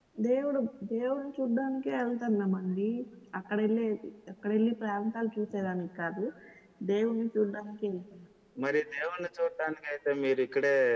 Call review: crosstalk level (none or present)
none